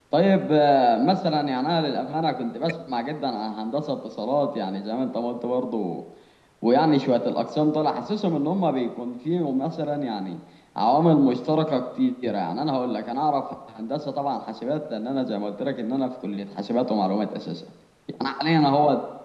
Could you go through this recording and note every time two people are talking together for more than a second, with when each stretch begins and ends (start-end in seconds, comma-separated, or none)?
none